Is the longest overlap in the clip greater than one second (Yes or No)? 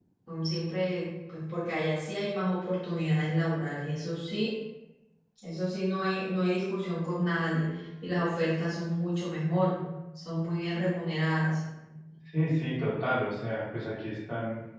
No